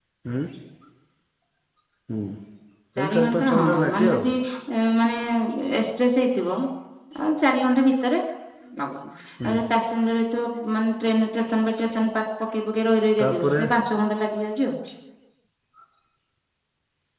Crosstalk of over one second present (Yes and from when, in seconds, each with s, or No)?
Yes, from 3.0 s